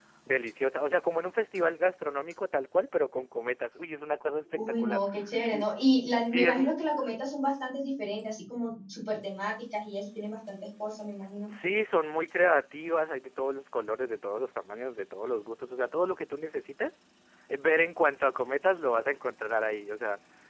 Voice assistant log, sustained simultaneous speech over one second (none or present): none